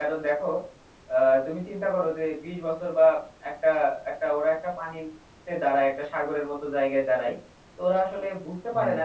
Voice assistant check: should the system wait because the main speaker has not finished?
Yes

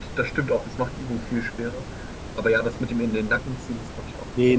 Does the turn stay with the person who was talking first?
No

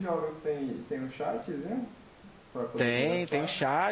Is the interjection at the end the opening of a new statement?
Yes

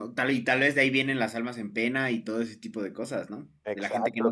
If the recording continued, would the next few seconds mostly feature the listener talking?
Yes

